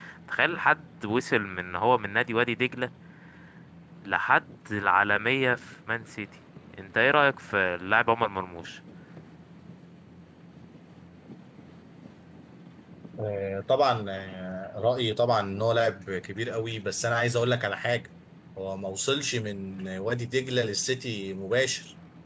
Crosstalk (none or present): none